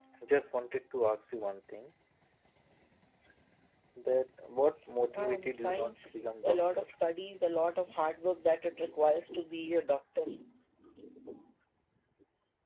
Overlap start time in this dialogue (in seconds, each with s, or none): 5.2 s